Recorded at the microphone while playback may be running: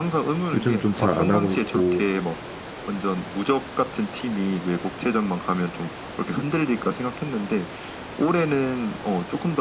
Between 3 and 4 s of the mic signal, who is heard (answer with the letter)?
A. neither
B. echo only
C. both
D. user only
B